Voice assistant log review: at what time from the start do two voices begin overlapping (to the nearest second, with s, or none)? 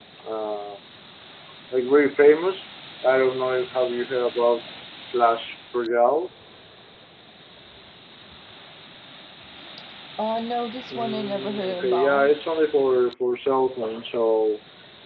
11 s